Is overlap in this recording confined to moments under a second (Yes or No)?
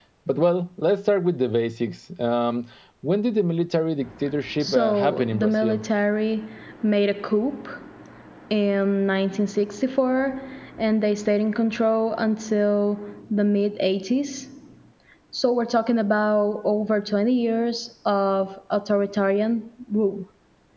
No